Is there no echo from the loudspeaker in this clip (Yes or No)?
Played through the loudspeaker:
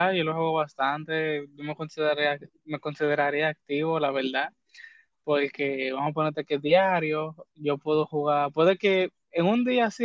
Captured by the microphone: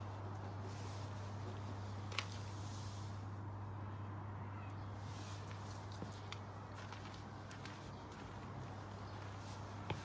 Yes